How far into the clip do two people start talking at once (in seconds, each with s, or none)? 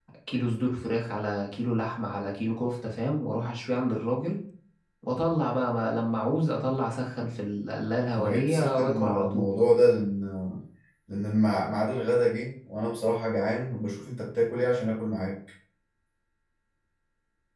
8.2 s